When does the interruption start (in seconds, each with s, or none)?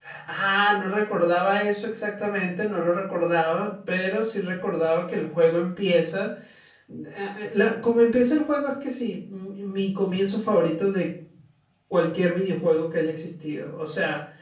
none